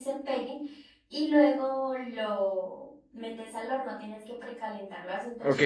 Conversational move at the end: taking over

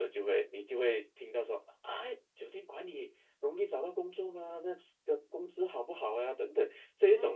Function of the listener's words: taking over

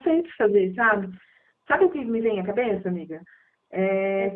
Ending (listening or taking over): listening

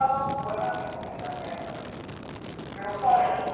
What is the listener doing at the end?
listening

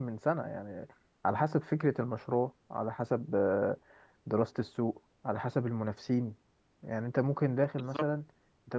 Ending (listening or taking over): listening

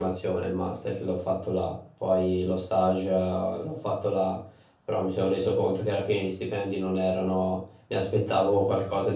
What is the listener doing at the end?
listening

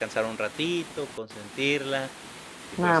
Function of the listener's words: listening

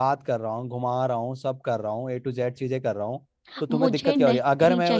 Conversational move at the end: taking over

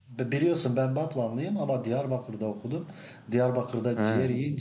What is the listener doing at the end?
listening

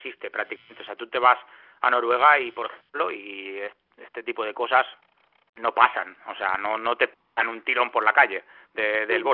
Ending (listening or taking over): listening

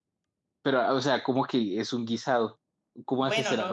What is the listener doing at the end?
taking over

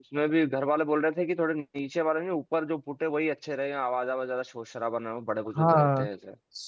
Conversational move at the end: taking over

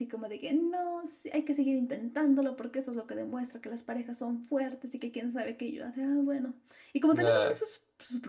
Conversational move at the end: listening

